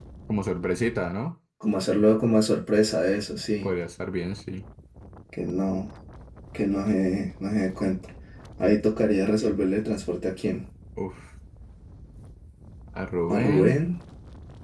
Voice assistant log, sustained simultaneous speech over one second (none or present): none